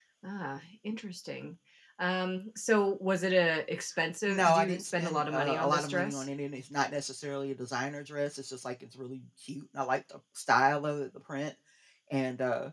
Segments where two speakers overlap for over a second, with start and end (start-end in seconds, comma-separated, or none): 4.3-6.3